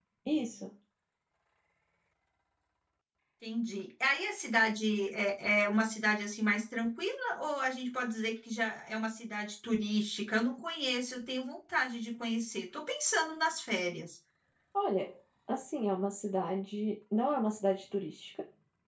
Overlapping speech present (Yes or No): No